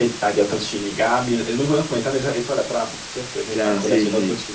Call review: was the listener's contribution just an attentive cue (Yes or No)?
No